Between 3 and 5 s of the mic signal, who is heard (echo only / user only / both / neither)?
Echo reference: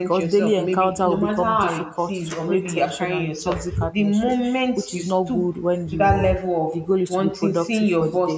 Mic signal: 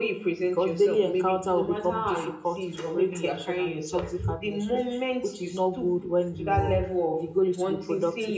echo only